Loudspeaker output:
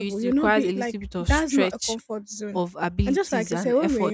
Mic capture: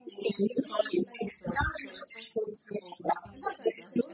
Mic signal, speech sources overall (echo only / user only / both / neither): echo only